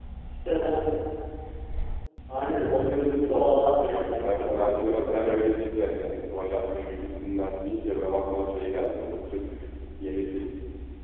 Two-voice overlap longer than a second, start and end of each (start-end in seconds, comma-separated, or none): 4.2-5.6